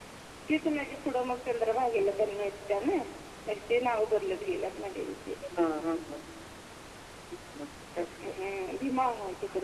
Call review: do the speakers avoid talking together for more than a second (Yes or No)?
Yes